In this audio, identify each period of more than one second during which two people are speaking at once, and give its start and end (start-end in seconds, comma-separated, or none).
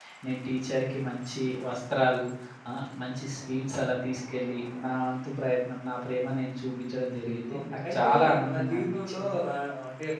7.6-9.3